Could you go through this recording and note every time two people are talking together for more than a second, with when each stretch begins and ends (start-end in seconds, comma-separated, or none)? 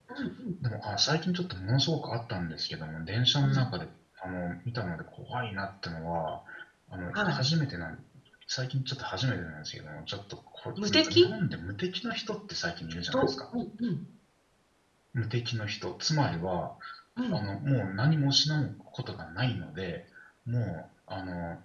none